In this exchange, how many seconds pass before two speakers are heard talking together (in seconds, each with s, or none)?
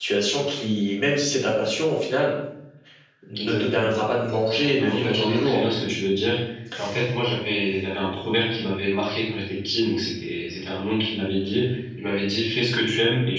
3.4 s